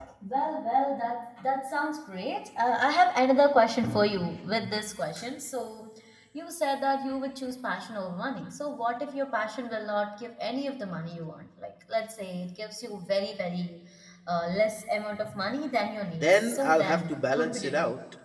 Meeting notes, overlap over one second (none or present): present